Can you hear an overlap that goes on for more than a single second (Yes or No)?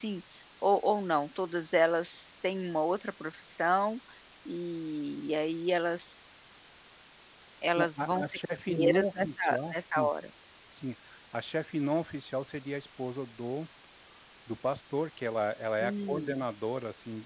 Yes